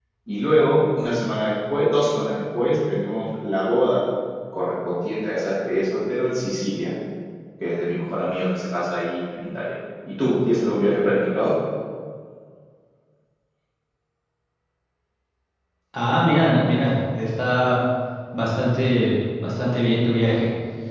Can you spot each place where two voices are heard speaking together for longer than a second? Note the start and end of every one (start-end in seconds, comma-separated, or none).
none